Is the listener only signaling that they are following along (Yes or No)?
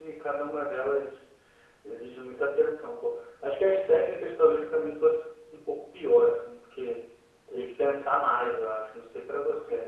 No